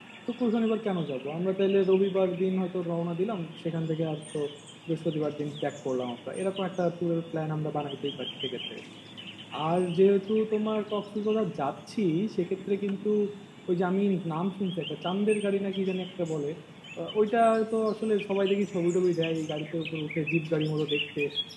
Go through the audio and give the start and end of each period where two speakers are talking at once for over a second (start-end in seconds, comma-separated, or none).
none